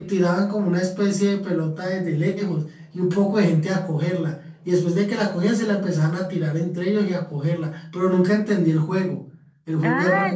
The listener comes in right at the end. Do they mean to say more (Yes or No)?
Yes